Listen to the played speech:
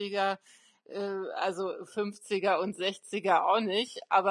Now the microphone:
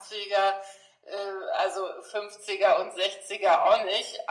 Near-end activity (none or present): none